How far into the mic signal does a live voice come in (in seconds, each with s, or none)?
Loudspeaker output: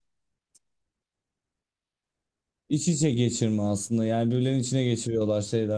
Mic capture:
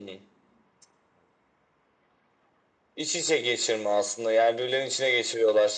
none